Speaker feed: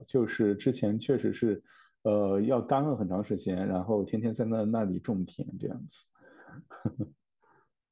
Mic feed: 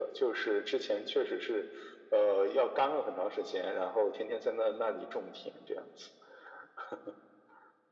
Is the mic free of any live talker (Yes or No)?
Yes